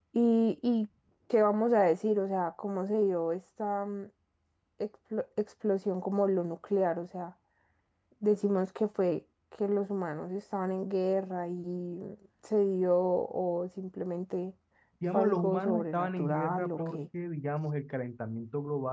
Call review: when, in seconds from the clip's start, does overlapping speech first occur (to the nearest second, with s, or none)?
15 s